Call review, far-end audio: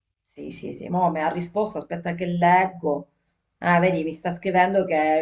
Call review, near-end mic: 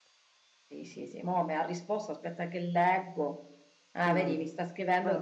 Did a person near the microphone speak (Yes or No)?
Yes